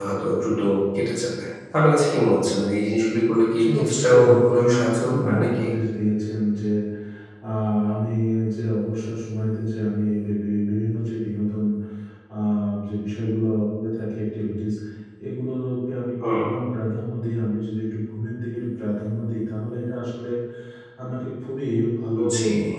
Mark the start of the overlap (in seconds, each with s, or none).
3.6 s